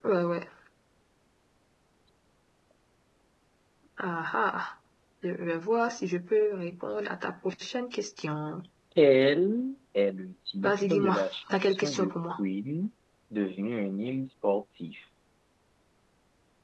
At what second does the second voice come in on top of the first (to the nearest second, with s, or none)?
11 s